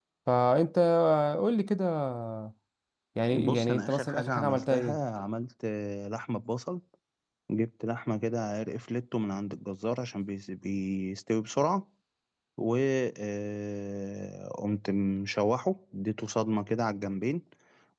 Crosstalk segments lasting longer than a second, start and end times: 3.3-5.0

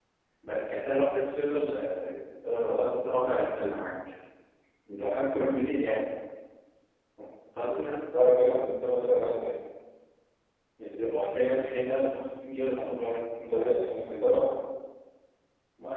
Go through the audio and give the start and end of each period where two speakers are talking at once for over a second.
none

